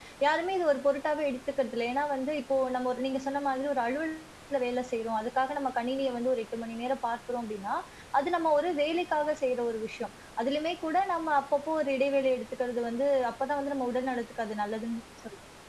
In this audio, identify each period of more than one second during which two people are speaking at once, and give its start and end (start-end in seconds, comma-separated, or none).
none